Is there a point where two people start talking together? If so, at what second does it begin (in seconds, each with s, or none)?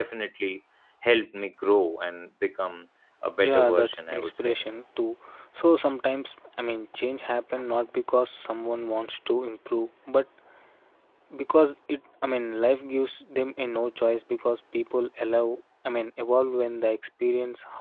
3.4 s